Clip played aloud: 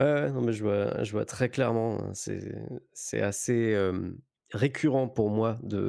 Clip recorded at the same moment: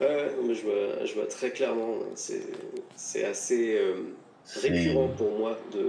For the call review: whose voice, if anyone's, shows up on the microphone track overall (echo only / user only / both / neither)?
both